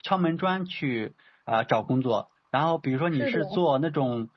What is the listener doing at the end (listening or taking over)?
listening